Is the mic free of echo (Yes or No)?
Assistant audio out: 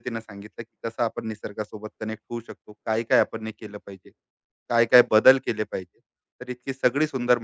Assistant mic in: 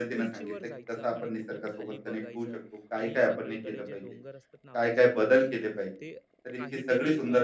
No